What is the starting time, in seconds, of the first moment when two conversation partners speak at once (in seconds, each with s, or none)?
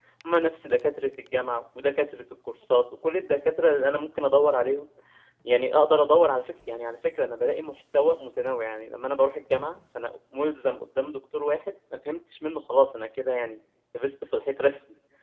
none